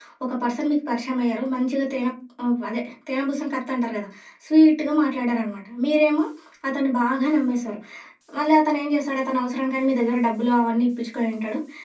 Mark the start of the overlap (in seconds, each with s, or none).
none